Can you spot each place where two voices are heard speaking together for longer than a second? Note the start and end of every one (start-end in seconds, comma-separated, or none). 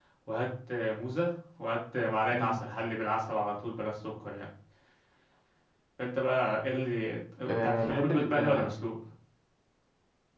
7.5-8.7